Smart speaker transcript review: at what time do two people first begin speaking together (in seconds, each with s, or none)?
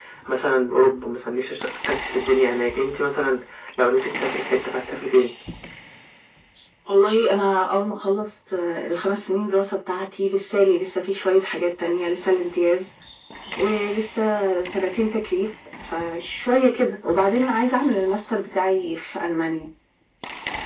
none